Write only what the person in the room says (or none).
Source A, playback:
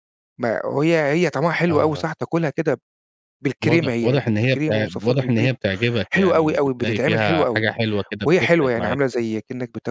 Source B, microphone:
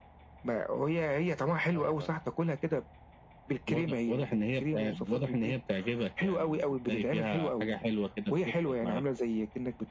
none